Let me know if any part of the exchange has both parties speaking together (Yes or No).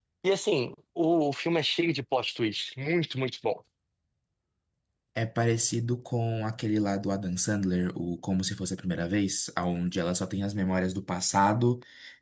No